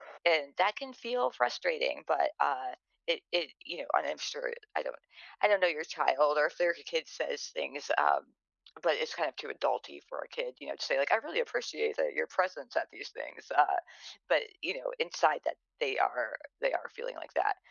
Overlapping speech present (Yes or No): No